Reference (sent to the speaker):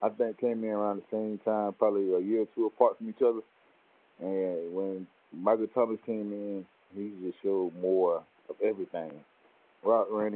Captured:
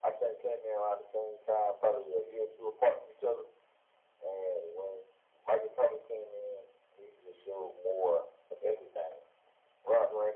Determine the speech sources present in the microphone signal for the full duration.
echo only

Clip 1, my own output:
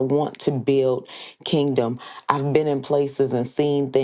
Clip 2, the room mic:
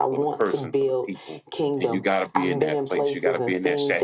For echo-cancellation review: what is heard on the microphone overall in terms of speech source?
both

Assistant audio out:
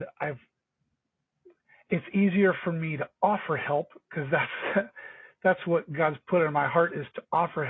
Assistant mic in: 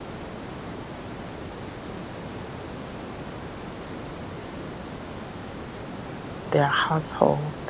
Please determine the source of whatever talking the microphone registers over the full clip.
user only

